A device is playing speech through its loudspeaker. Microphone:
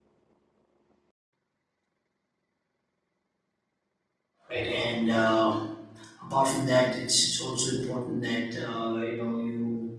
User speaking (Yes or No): Yes